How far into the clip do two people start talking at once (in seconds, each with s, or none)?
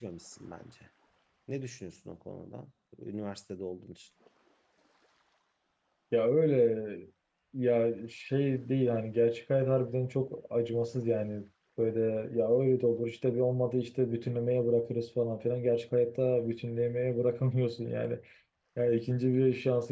none